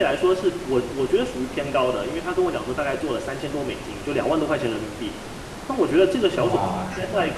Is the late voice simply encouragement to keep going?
No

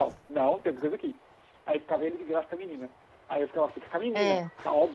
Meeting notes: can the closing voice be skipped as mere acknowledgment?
Yes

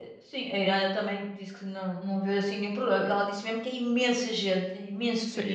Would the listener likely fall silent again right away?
No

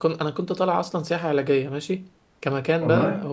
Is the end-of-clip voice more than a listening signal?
No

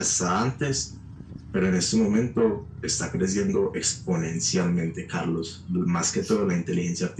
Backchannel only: Yes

